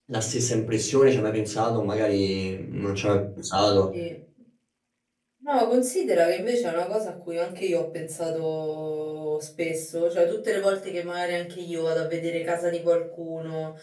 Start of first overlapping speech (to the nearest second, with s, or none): none